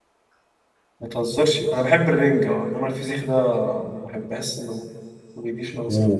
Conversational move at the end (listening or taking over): taking over